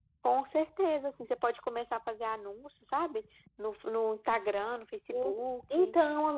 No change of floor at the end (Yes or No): No